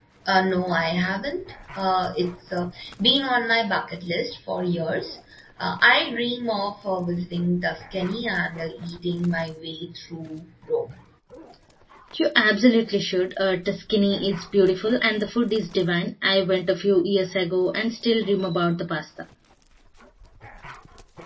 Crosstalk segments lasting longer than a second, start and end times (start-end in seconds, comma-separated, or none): none